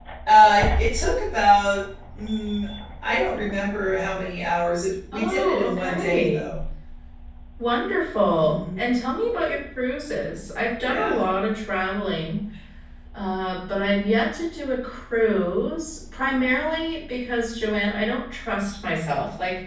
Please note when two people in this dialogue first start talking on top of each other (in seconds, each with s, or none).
5.1 s